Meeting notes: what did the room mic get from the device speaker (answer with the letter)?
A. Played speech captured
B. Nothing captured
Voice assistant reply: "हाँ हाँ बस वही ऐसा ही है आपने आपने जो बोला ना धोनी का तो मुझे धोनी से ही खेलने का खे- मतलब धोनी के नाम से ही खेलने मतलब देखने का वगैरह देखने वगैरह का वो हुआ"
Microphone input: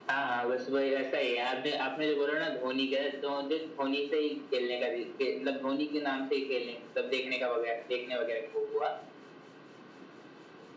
A